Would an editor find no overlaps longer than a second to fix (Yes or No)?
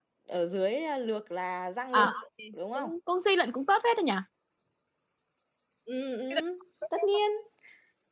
Yes